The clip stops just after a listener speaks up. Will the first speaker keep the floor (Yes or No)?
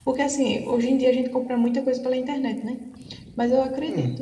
Yes